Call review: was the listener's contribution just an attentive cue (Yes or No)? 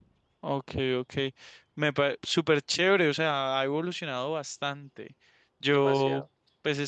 Yes